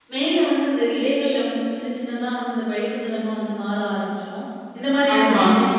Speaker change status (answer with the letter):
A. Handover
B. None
B